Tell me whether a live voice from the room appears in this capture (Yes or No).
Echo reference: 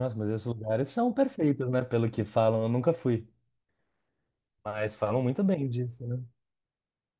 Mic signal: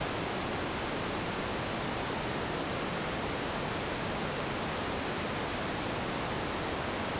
No